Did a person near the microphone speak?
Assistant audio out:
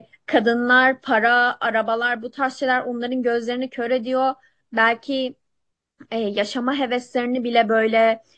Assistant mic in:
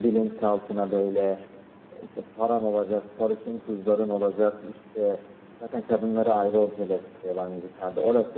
Yes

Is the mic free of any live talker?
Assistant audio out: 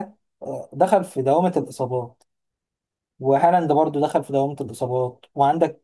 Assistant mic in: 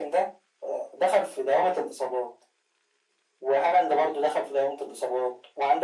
Yes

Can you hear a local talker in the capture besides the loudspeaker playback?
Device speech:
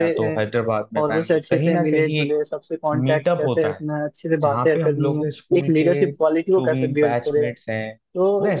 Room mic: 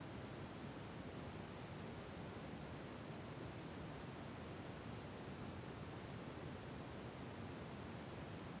No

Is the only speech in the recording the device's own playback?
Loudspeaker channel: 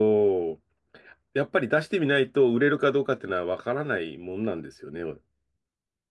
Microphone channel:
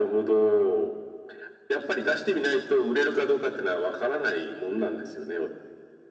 Yes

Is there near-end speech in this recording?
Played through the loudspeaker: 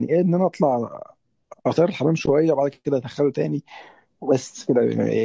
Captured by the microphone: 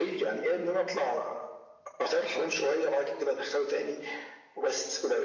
No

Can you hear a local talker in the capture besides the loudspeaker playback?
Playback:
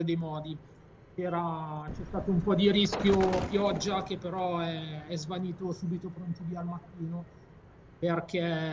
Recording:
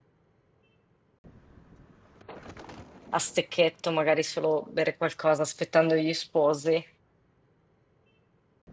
Yes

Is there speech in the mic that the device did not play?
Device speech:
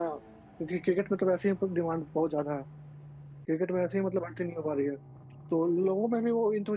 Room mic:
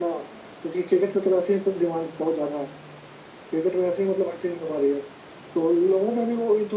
No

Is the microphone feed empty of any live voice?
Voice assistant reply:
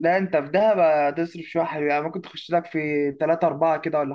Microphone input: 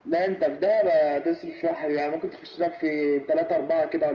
Yes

